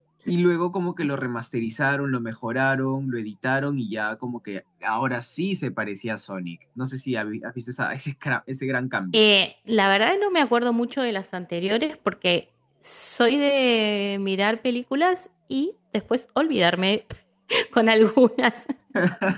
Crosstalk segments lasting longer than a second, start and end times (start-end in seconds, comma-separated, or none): none